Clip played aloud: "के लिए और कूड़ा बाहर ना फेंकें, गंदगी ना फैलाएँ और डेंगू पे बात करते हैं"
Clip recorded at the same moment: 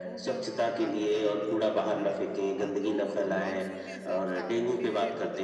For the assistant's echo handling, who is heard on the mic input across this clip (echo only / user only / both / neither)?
both